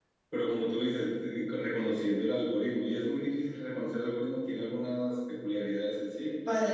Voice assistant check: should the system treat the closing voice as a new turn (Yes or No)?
Yes